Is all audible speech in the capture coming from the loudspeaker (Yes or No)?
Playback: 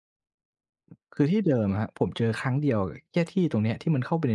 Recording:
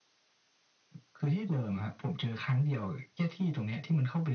Yes